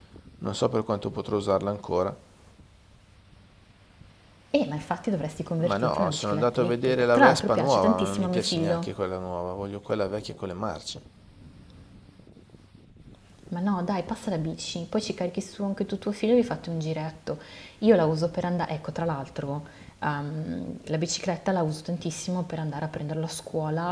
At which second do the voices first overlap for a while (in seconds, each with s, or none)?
5.6 s